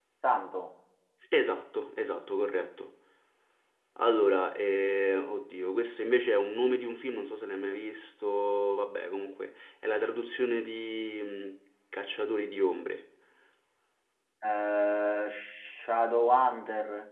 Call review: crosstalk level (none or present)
none